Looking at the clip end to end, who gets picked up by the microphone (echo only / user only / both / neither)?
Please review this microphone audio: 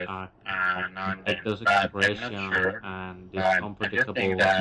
both